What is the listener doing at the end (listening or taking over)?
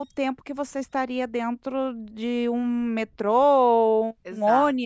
listening